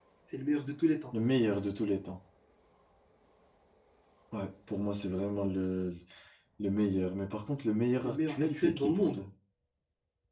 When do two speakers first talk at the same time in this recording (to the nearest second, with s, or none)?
8 s